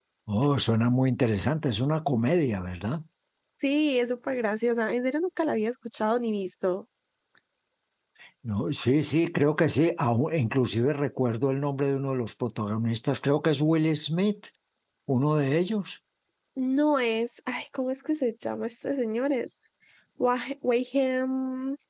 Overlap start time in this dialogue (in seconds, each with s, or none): none